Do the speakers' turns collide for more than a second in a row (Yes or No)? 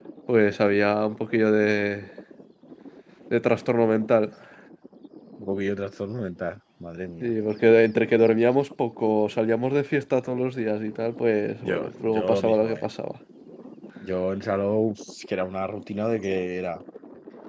Yes